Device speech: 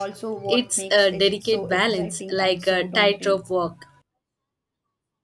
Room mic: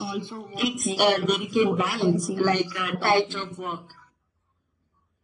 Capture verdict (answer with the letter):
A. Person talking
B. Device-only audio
B